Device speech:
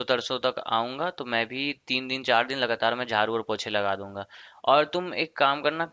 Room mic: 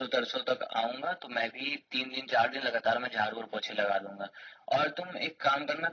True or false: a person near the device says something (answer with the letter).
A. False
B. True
A